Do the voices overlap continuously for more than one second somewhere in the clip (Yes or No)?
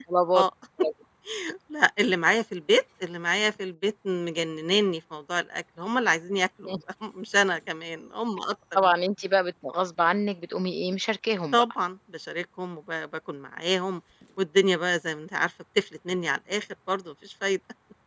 No